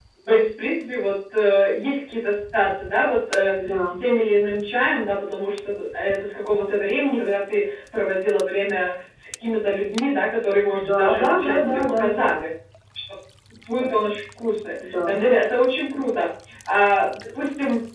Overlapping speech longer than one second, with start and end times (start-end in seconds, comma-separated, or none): 10.7-12.0